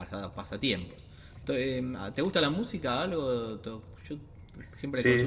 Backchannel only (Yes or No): No